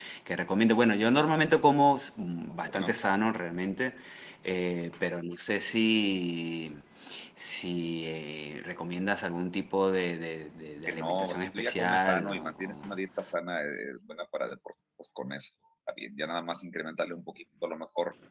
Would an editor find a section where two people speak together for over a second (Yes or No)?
Yes